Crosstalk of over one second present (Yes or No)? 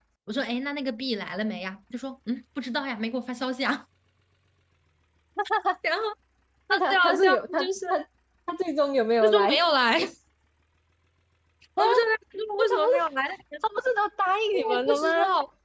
Yes